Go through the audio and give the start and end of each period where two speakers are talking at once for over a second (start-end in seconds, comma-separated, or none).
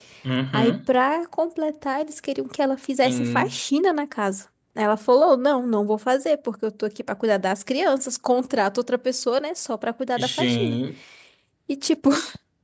none